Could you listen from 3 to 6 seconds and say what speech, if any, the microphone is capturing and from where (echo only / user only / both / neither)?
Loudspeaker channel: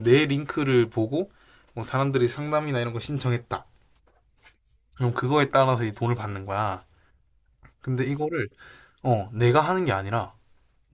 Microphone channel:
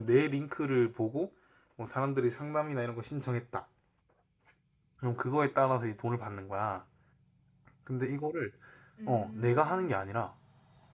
echo only